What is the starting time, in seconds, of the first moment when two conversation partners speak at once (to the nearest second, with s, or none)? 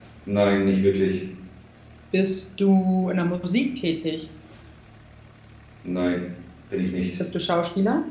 none